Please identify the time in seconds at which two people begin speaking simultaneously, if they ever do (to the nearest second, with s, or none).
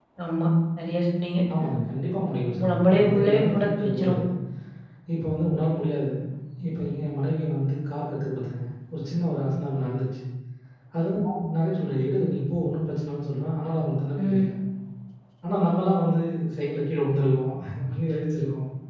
3 s